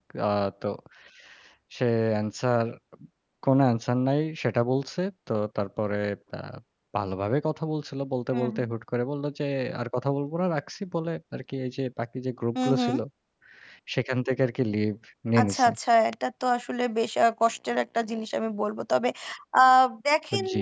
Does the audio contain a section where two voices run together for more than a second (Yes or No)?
No